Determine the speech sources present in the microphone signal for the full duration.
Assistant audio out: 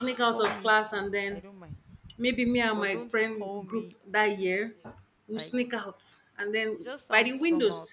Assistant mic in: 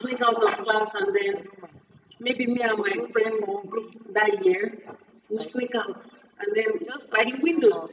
echo only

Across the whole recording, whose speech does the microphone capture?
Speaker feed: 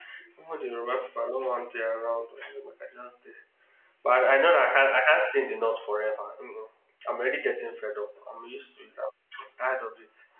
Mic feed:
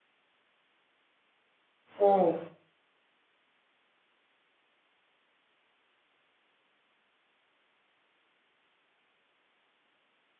user only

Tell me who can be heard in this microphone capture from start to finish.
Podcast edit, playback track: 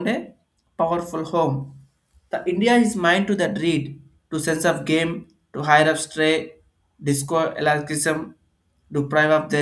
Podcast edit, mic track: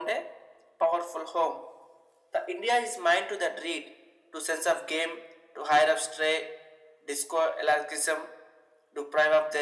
echo only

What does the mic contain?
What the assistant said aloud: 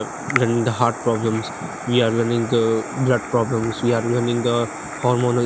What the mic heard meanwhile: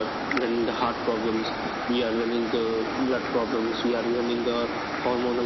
echo only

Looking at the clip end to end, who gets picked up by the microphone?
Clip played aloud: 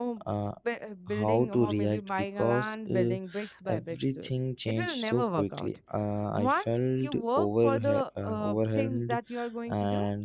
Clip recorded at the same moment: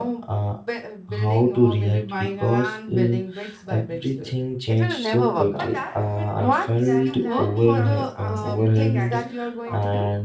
both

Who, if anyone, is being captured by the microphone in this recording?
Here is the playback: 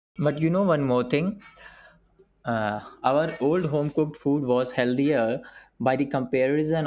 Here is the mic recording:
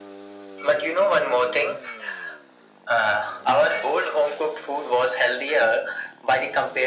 echo only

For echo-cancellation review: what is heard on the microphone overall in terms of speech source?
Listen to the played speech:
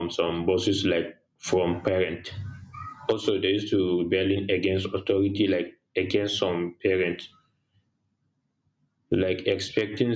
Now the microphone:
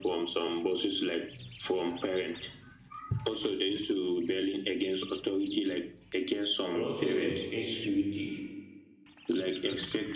both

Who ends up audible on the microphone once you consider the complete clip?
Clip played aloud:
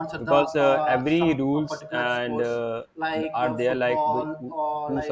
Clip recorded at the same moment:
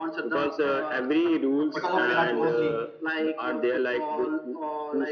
both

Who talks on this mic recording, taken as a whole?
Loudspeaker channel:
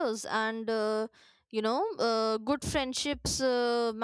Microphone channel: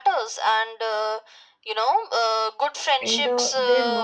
both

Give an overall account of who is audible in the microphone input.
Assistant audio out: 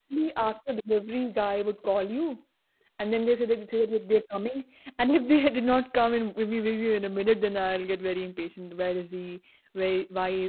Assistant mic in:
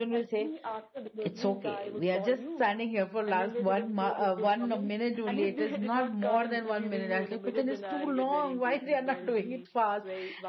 both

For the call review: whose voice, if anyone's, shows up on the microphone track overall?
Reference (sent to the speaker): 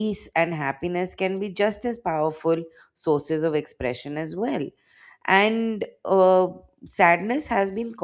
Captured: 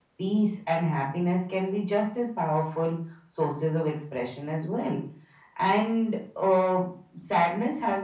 echo only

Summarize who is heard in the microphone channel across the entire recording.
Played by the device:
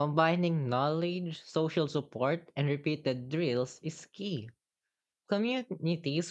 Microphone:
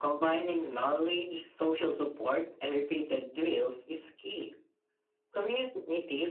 echo only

